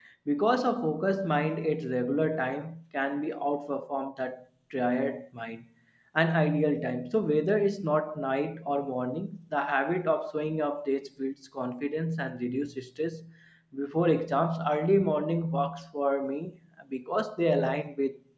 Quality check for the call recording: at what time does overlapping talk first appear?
none

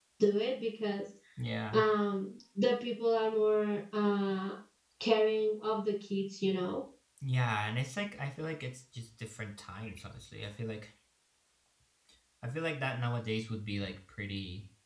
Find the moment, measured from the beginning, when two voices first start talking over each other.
none

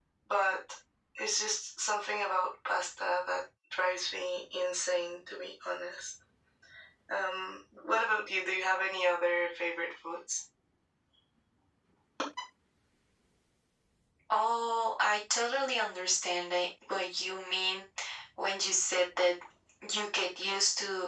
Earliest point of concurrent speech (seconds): none

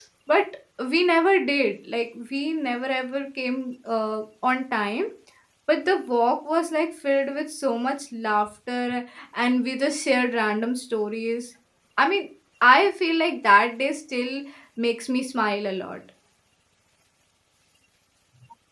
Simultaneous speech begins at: none

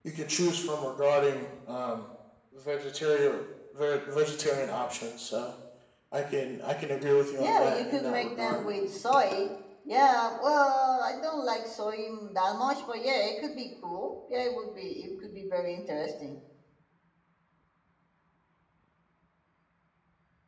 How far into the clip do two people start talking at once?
7 s

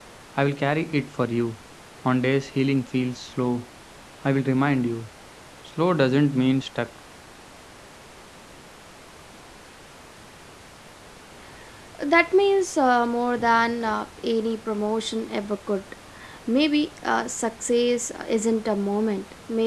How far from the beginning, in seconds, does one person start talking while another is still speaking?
none

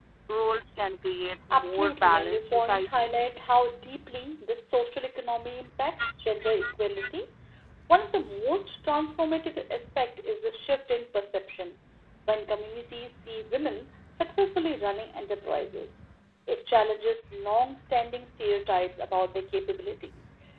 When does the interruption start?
2 s

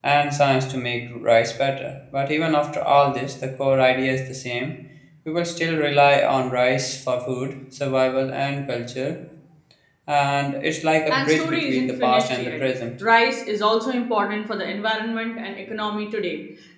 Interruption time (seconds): 11 s

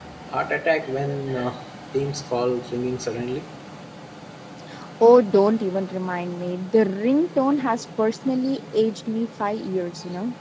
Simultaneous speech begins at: none

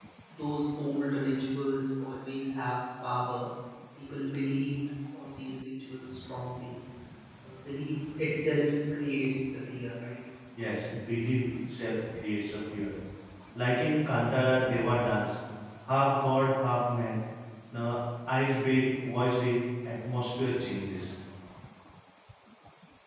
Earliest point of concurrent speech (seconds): none

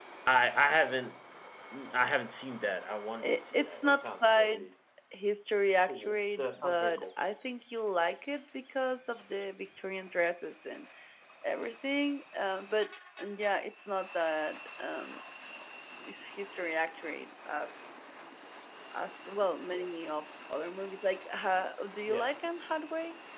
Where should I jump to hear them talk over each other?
3 s

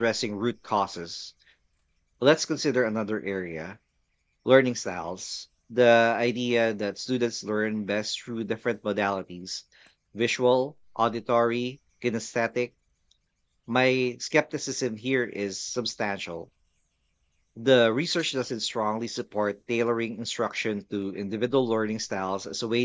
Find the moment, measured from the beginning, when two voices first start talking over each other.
none

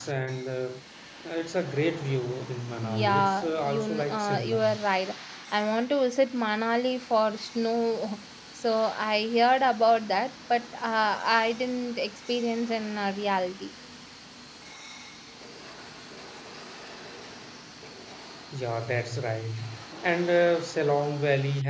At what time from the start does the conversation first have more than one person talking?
3 s

